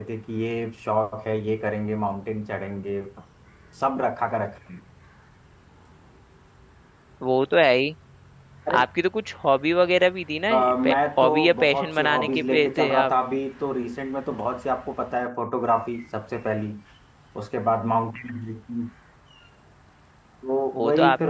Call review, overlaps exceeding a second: present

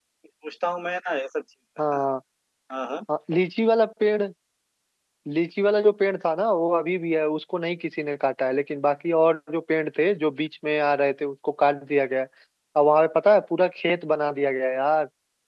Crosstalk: none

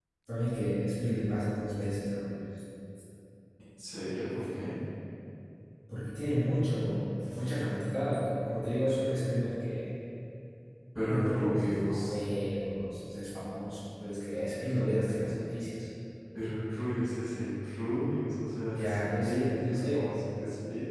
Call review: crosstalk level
present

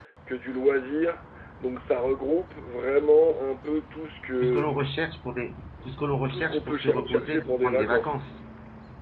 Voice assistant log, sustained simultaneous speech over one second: present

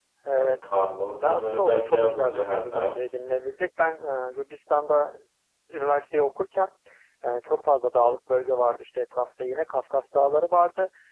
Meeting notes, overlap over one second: present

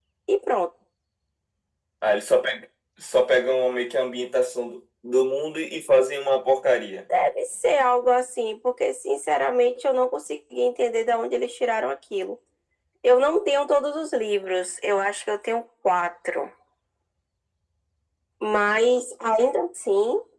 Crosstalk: none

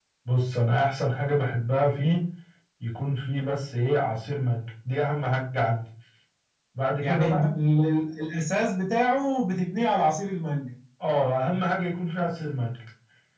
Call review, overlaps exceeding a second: none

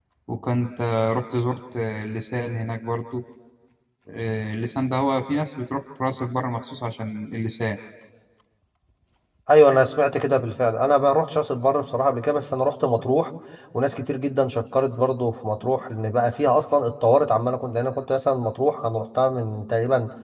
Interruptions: none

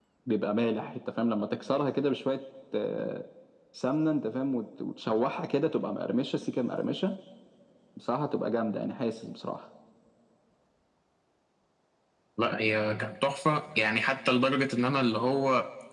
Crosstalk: none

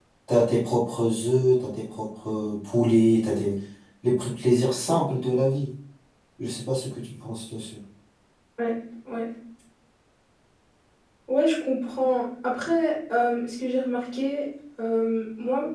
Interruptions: none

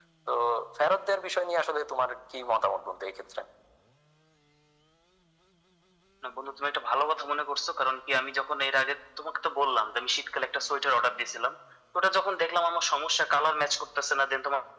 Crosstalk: none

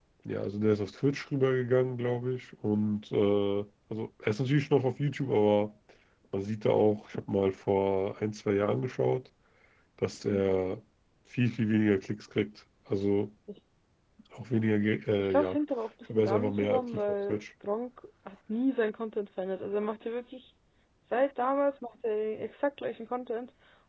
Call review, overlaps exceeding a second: present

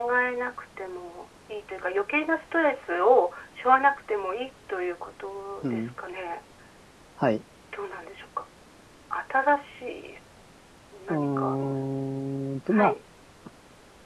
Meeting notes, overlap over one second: none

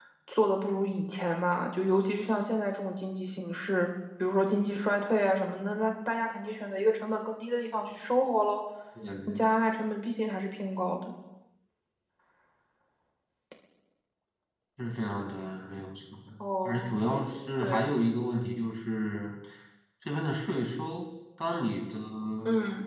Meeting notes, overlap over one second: none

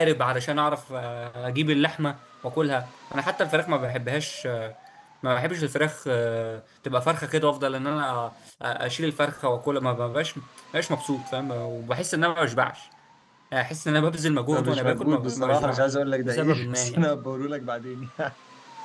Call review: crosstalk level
present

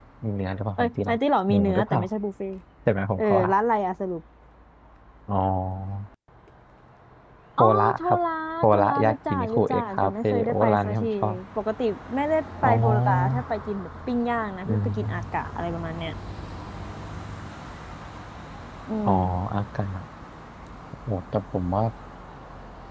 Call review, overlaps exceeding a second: present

